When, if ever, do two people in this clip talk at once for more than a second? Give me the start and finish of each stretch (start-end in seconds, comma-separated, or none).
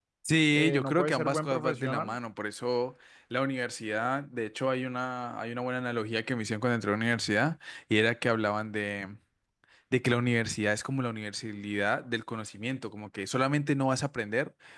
0.5-2.2